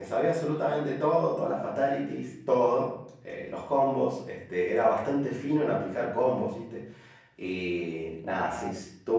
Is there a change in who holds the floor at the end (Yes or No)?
No